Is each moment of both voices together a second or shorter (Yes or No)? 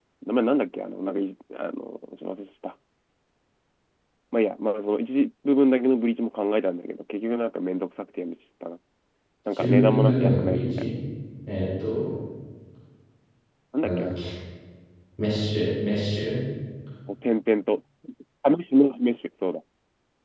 No